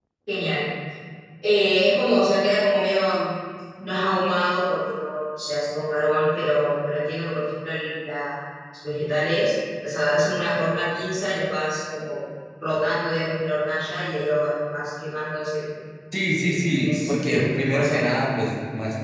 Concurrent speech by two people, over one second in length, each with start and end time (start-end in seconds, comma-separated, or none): 16.4-18.0